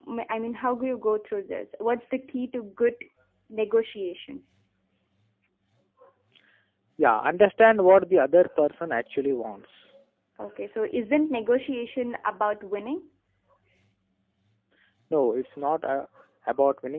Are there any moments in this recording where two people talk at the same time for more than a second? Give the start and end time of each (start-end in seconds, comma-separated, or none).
none